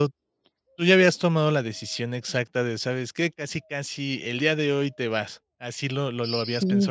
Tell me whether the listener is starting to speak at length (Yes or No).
Yes